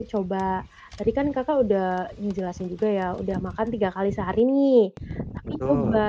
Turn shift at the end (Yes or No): No